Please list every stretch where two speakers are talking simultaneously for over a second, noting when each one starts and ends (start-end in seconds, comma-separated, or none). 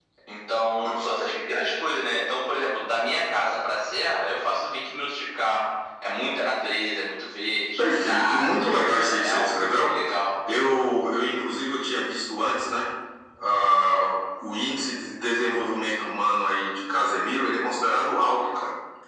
7.8-9.9